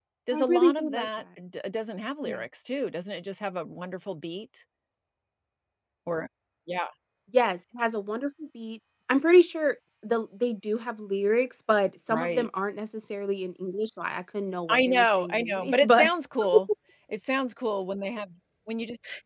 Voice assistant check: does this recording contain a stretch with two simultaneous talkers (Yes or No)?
Yes